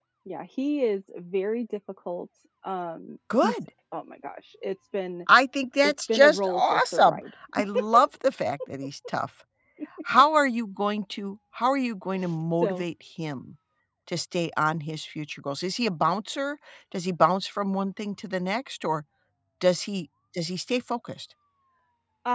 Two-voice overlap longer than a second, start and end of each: 5.8-7.2

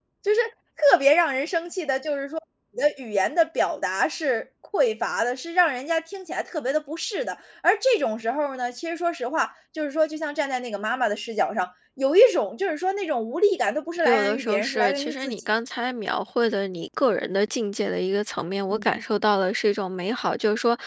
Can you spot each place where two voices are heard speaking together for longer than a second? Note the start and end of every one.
14.0-15.4

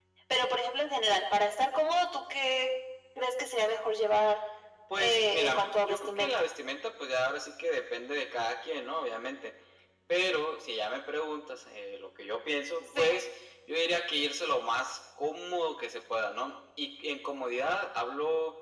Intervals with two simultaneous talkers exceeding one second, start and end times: 5.0-6.5

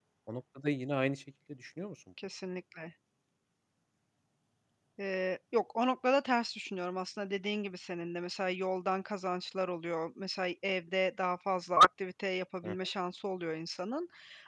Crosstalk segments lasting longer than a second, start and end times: none

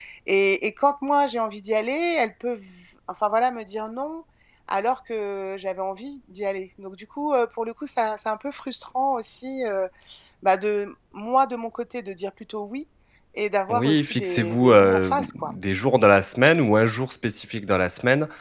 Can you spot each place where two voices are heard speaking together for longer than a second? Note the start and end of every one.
13.7-15.5

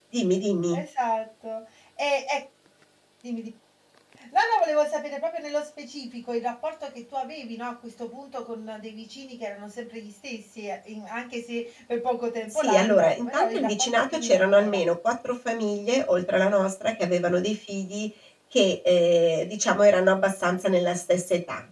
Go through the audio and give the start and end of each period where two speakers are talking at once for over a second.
12.5-14.8

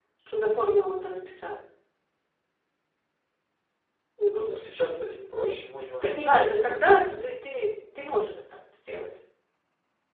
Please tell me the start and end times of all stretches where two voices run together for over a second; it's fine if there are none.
none

